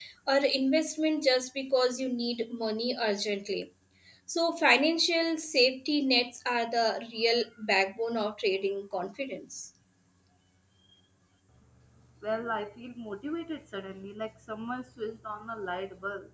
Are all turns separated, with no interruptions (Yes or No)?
Yes